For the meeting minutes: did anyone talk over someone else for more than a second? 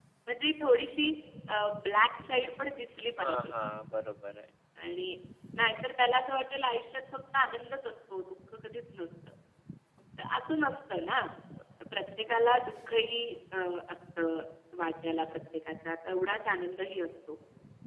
No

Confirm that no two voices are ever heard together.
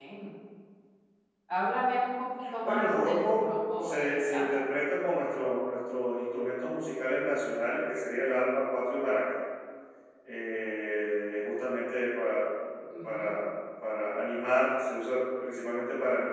No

